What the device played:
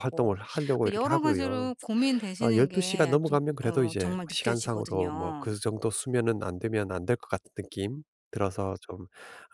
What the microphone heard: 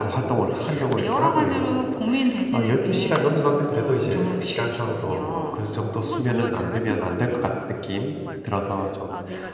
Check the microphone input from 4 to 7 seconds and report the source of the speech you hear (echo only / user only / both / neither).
both